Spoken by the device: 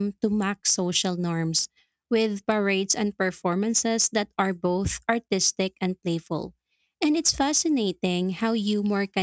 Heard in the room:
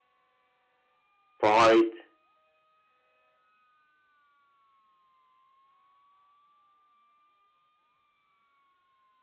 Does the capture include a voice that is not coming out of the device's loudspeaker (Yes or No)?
Yes